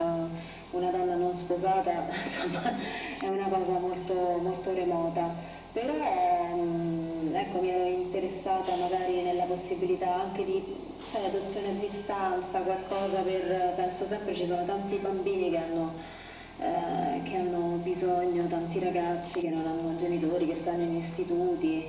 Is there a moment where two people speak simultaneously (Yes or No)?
No